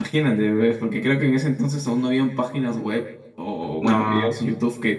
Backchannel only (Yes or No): Yes